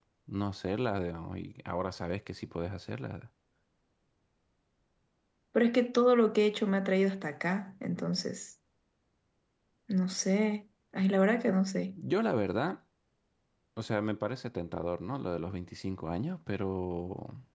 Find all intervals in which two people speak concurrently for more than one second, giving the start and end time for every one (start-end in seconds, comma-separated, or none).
none